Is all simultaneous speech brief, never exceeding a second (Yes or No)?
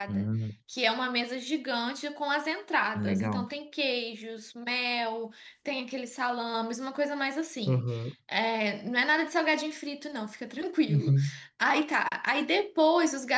Yes